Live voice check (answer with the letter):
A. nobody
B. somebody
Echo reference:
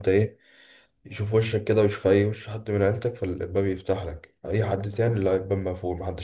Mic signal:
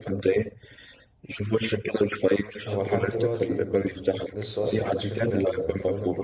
B